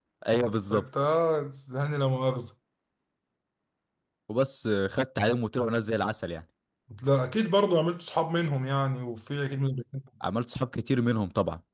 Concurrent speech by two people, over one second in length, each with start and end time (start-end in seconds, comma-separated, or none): none